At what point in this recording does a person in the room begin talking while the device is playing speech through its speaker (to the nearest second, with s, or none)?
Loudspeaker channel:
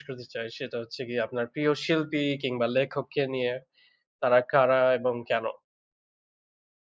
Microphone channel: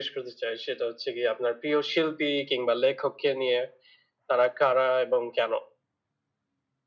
none